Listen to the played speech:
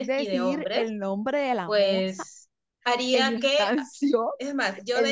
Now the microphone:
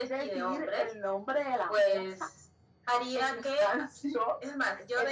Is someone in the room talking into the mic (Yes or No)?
No